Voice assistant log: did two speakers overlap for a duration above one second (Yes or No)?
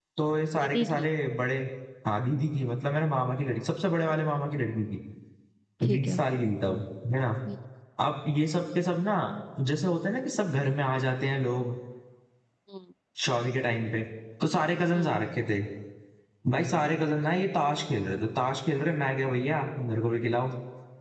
No